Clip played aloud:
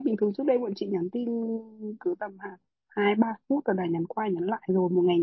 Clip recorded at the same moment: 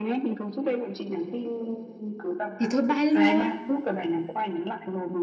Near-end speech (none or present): present